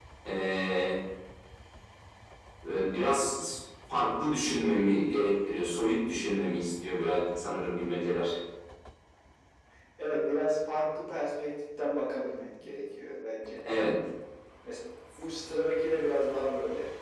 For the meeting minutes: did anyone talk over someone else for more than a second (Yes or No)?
No